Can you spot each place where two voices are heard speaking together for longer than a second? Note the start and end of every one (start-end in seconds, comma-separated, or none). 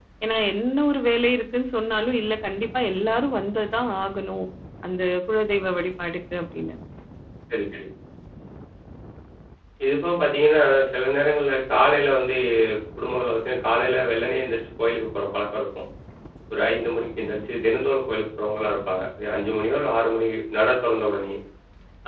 none